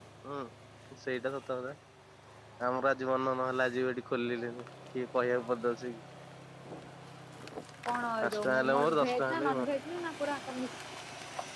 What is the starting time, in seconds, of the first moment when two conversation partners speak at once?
8 s

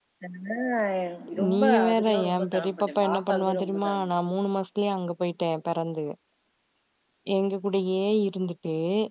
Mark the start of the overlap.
2 s

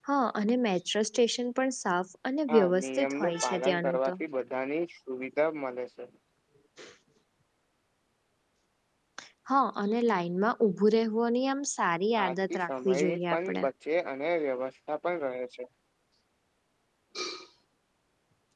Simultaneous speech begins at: 2 s

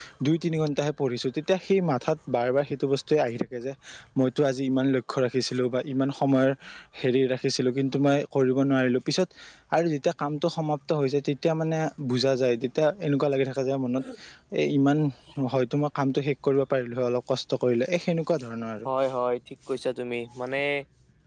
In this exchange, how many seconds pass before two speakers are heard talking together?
none

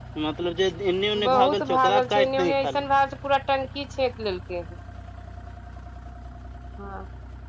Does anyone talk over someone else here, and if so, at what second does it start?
1 s

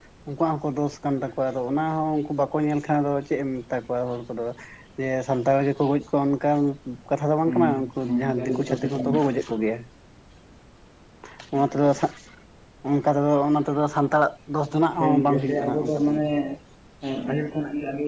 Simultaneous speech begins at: 7 s

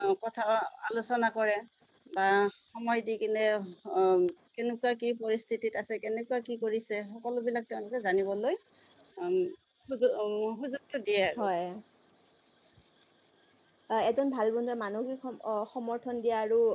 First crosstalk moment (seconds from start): none

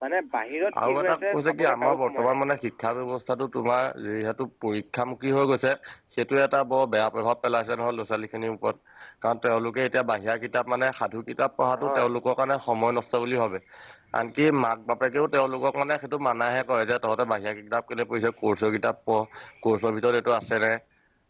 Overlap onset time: 1 s

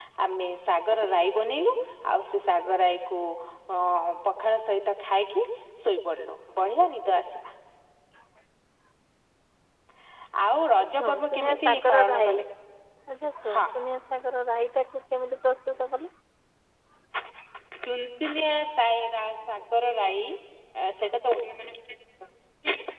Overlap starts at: 11 s

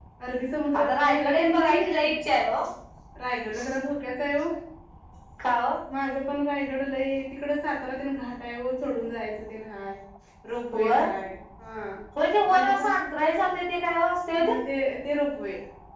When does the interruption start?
1 s

